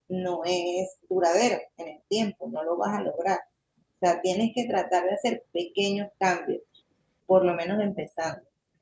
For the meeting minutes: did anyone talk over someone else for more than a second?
No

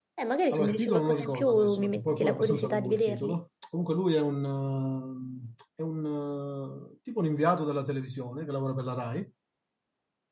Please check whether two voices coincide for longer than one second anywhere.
Yes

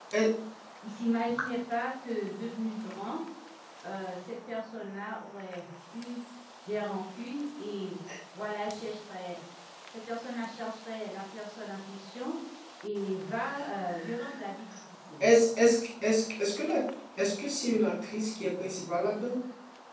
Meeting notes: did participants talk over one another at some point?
No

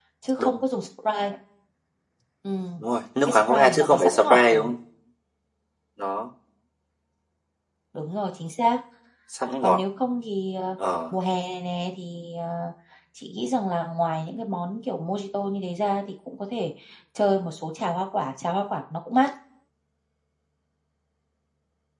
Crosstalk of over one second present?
Yes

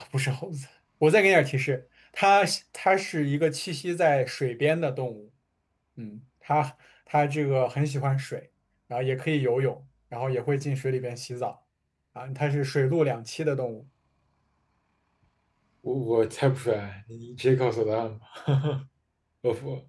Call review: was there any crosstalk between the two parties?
No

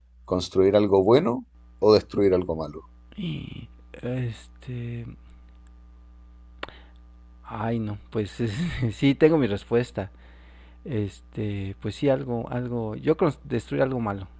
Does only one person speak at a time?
Yes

